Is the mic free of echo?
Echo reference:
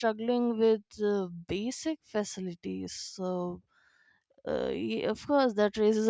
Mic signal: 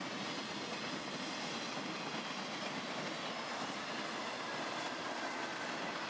Yes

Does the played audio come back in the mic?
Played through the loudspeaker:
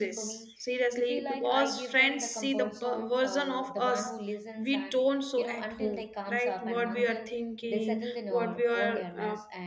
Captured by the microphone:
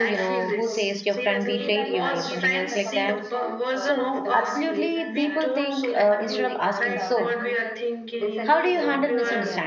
Yes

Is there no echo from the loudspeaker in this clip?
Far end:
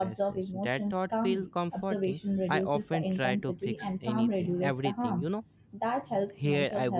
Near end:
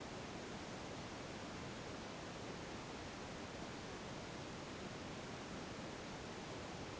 Yes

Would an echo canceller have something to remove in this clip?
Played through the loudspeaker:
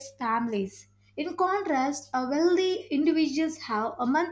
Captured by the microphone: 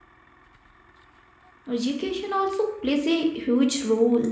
No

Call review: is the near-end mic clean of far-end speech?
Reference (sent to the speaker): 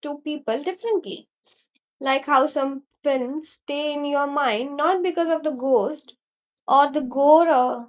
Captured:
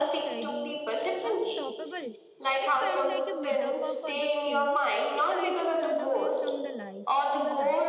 No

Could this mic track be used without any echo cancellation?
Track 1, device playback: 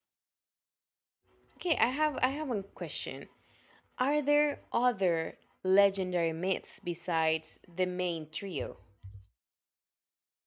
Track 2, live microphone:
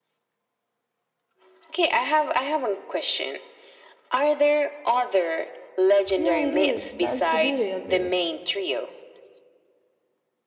No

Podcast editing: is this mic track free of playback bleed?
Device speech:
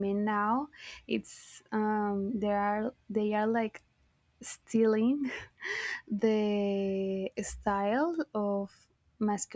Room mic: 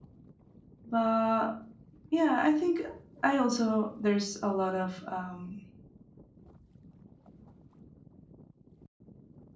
Yes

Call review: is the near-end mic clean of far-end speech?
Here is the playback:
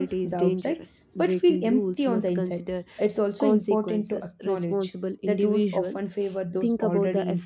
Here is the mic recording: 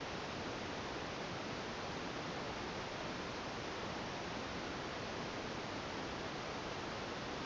Yes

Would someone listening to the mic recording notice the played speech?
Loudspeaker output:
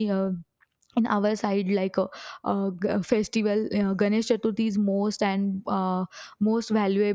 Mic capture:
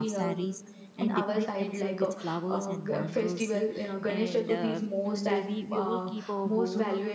Yes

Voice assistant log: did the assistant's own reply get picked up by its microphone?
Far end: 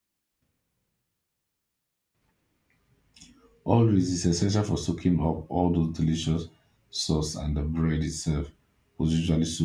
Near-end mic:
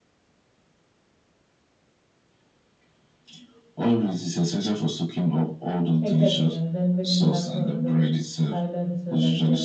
Yes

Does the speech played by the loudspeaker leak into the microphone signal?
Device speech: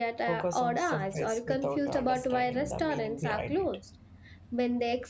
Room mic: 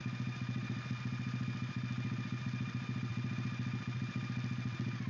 No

